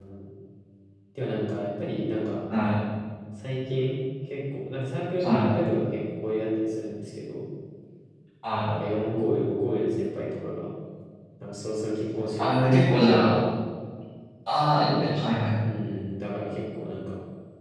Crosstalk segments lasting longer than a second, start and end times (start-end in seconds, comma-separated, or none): none